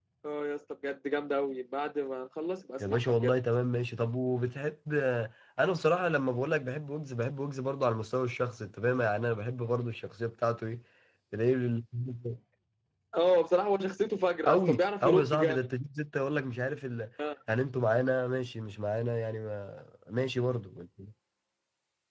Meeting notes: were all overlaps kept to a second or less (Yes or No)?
No